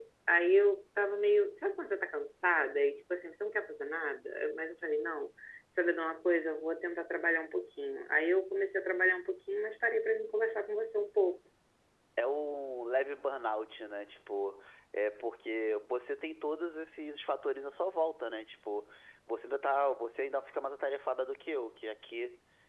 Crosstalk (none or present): none